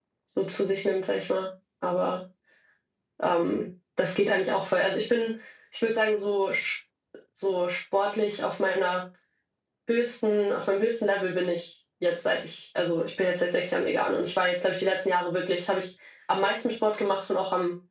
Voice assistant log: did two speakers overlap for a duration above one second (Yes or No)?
No